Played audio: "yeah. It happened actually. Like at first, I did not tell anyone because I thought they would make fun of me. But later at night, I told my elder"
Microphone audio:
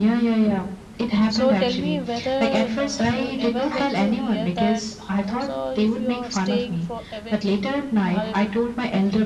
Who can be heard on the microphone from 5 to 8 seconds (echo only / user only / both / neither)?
both